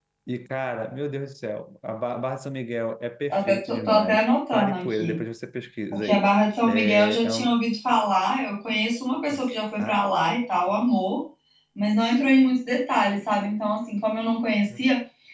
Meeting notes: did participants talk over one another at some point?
Yes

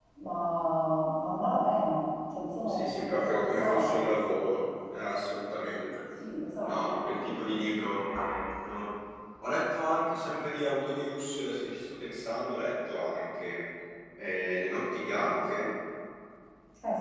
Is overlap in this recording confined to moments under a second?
No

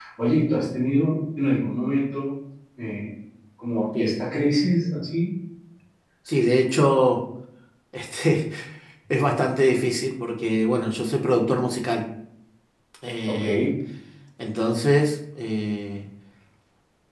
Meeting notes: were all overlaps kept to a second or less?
Yes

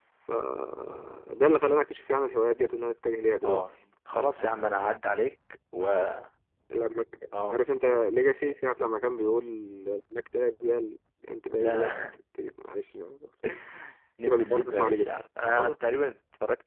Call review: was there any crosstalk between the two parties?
Yes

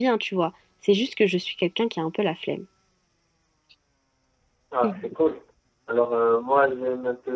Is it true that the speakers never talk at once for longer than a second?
Yes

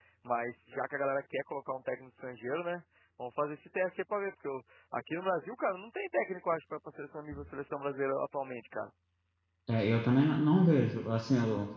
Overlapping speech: No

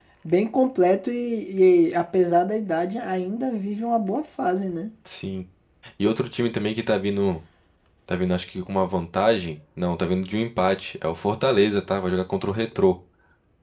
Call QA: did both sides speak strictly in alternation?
Yes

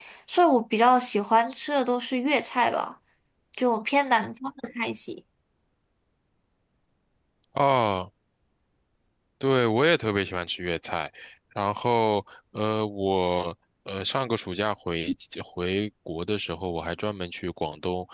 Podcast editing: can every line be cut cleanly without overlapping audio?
Yes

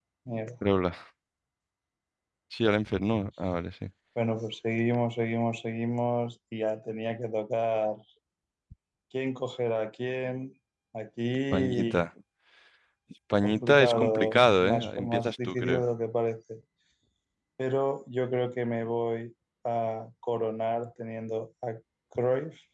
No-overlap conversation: No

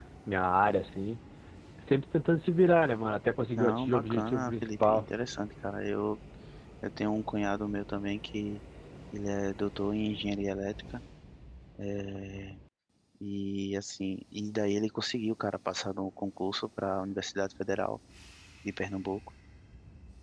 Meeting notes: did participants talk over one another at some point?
Yes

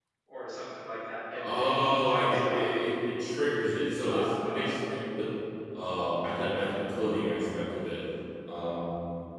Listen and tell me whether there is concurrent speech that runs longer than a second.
Yes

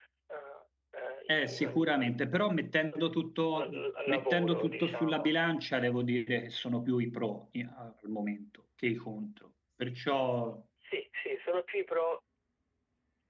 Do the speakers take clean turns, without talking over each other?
No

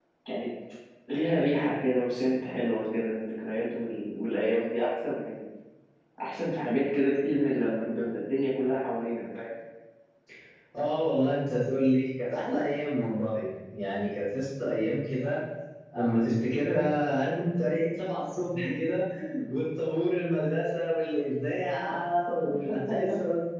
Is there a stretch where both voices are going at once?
No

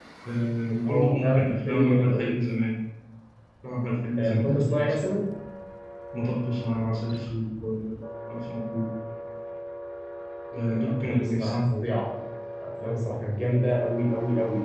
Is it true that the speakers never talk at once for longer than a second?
No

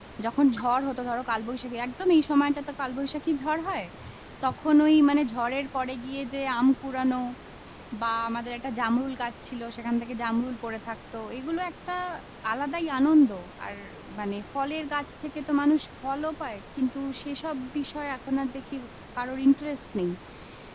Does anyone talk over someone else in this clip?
No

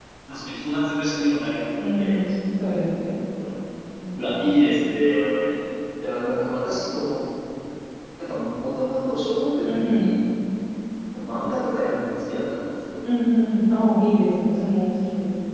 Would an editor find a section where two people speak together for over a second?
No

